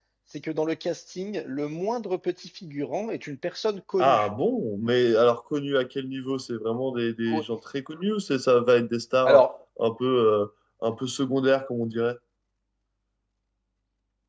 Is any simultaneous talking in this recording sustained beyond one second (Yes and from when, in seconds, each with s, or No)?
No